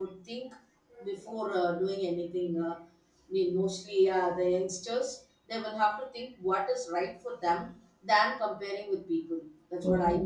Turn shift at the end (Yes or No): Yes